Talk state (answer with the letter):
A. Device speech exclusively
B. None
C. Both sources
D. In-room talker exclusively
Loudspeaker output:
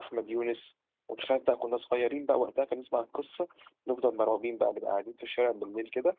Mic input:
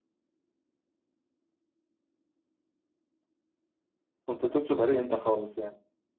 D